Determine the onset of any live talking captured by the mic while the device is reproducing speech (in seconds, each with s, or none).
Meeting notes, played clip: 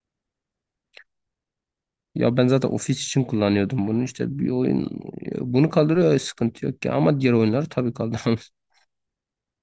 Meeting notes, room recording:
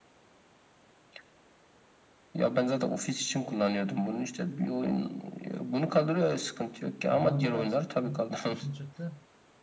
7.1 s